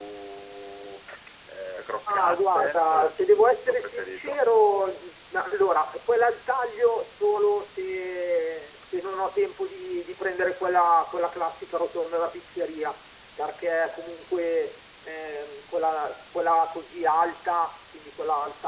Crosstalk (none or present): present